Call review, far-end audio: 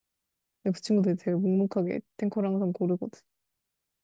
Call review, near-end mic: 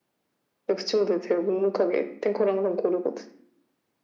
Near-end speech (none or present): none